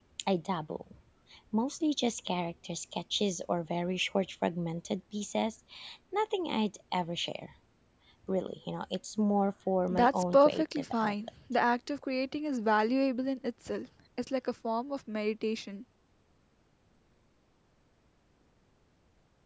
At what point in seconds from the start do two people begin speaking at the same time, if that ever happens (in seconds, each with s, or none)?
9.9 s